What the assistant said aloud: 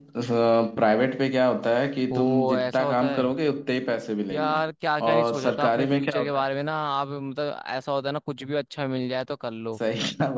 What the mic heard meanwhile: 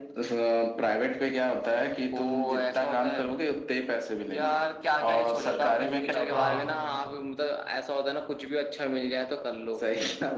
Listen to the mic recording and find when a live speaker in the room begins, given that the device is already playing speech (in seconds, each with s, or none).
6.3 s